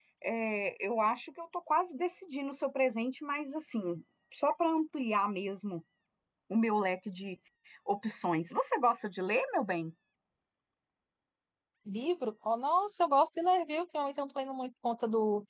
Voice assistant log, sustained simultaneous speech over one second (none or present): none